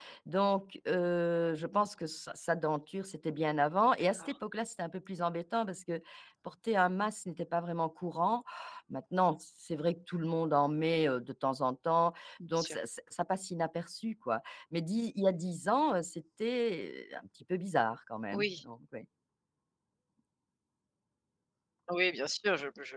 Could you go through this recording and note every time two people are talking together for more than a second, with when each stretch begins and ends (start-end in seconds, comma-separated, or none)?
none